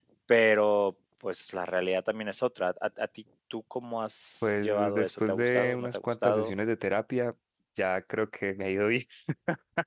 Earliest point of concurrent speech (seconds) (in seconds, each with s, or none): 4.4 s